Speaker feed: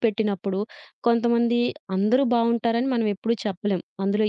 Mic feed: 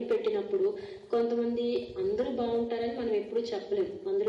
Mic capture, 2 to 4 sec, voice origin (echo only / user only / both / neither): echo only